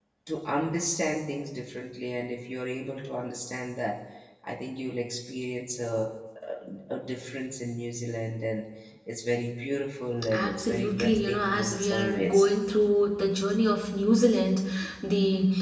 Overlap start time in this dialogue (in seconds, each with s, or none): 10.2 s